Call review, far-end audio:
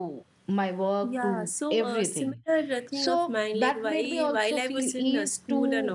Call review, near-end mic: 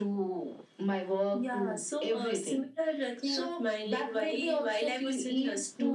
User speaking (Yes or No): No